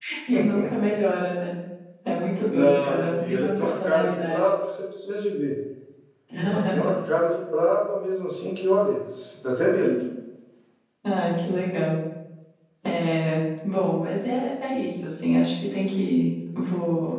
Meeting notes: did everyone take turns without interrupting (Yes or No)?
No